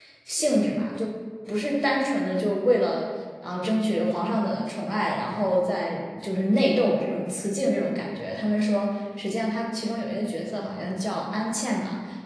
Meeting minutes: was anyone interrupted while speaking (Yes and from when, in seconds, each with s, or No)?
No